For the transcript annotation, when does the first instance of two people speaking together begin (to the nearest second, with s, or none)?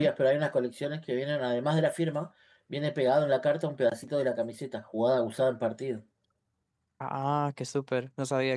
none